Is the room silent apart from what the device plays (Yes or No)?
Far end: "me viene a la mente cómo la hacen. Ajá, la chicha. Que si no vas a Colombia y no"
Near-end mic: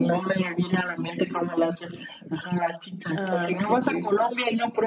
No